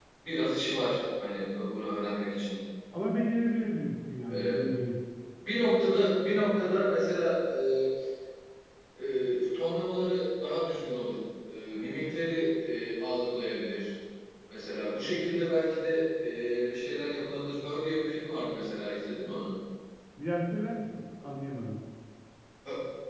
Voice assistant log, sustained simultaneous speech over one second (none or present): none